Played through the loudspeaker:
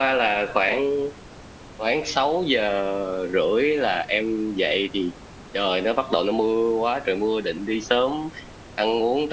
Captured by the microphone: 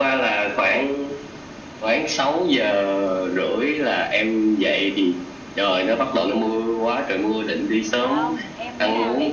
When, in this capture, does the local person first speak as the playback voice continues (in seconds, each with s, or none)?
8.0 s